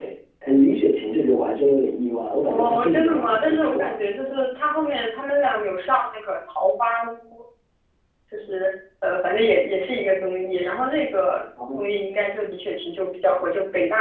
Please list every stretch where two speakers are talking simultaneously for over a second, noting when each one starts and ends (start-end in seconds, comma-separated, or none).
2.5-4.0